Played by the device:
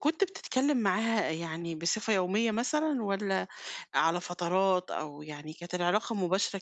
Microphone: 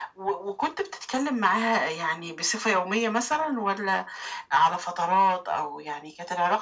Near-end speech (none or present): none